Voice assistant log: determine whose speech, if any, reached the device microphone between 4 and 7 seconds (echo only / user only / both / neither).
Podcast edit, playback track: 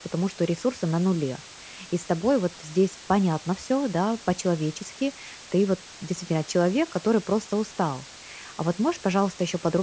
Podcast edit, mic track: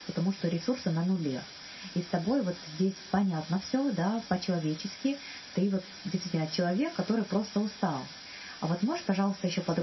echo only